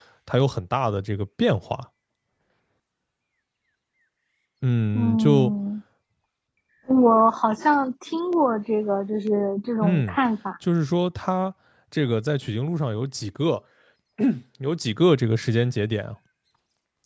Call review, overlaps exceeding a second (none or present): none